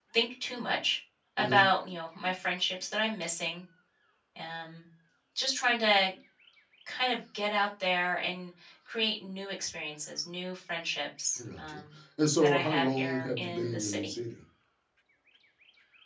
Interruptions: present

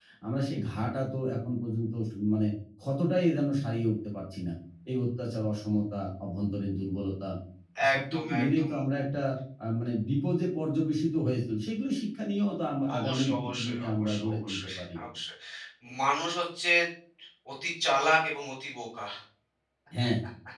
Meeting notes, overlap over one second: present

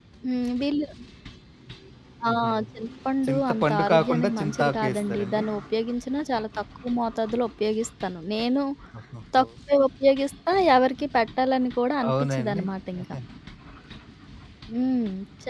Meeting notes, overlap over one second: present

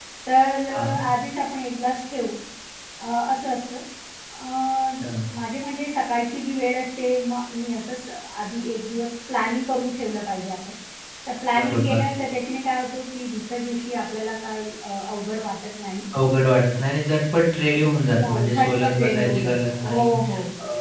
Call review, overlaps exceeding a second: present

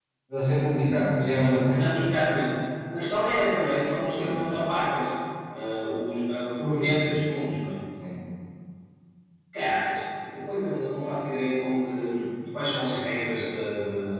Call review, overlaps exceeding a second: none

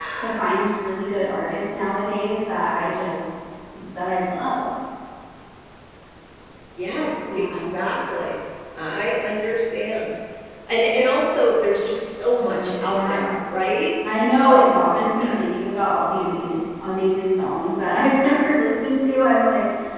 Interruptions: present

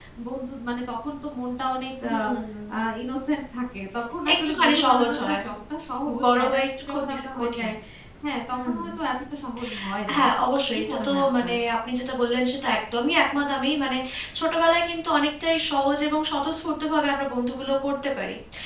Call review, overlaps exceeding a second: present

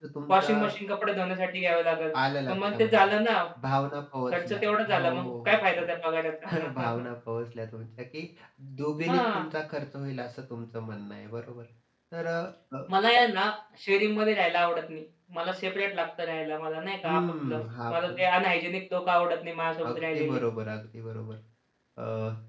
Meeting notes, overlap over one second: present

